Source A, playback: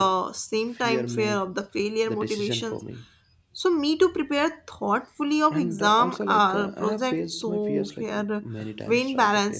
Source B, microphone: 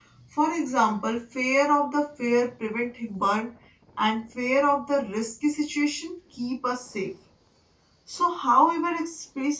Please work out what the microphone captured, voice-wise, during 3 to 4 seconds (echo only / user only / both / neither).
user only